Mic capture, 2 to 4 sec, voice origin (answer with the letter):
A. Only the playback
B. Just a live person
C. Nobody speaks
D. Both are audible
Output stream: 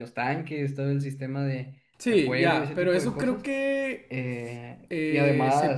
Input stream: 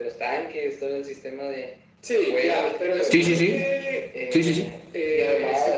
D